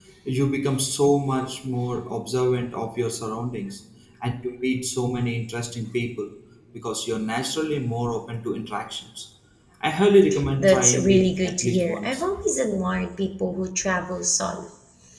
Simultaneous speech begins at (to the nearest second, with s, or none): 11 s